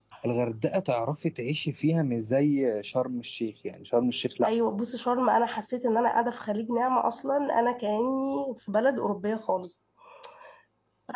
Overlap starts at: none

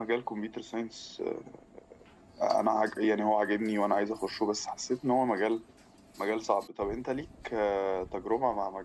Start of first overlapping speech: none

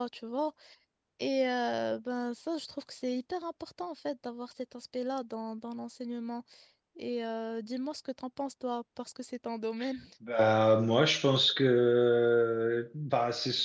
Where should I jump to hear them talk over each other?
none

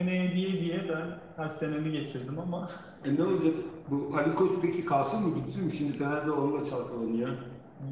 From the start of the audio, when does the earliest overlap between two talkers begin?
none

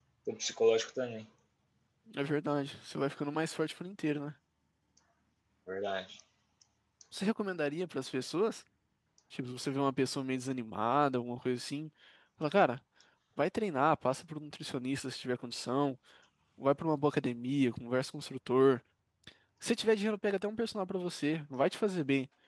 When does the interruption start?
none

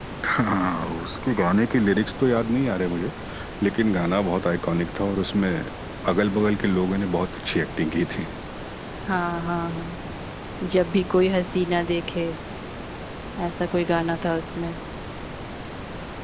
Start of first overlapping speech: none

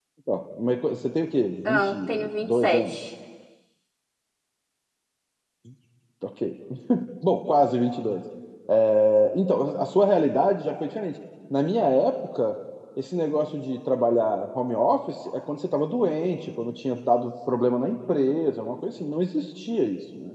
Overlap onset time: 1.6 s

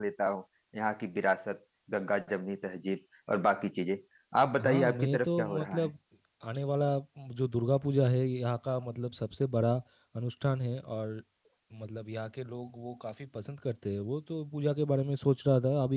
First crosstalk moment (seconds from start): 4.6 s

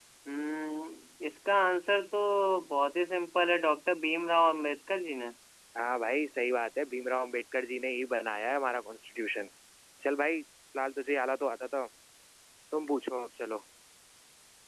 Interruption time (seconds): none

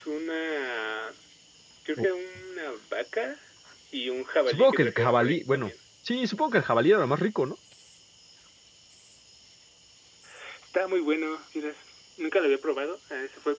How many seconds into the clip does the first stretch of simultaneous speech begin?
4.5 s

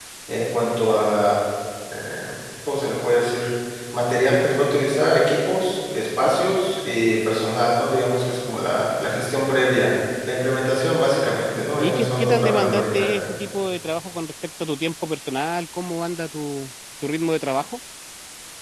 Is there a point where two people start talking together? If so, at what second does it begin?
11.8 s

